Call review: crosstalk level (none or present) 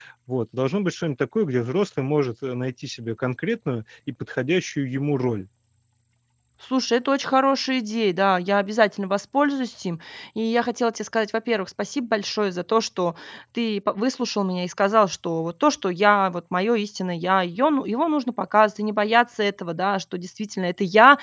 none